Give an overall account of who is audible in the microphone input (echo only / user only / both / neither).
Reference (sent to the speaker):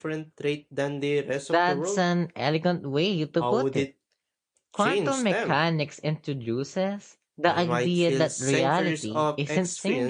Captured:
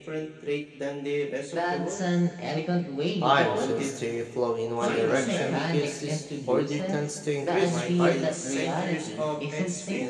both